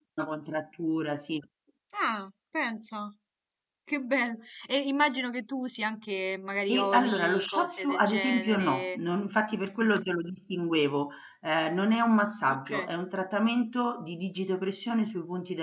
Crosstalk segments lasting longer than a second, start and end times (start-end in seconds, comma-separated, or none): 6.7-9.0